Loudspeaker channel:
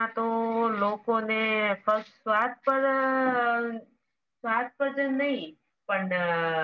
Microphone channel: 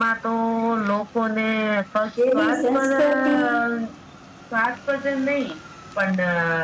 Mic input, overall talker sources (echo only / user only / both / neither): both